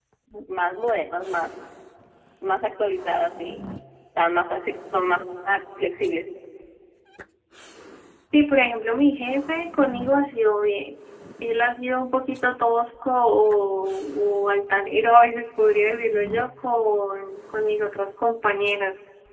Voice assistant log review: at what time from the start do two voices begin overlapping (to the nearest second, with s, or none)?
none